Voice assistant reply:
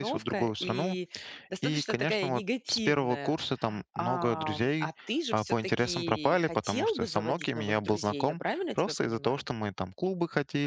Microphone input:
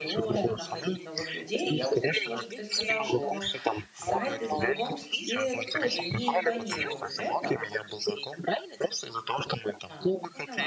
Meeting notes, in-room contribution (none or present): present